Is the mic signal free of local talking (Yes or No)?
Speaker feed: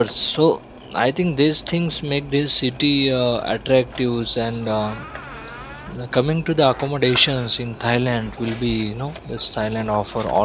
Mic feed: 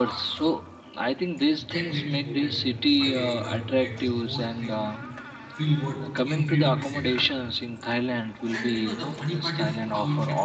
No